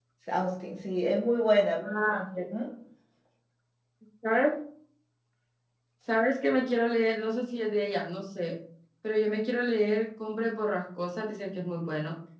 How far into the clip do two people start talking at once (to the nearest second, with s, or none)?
none